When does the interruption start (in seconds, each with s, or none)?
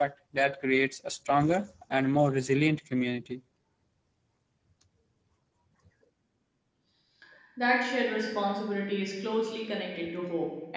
none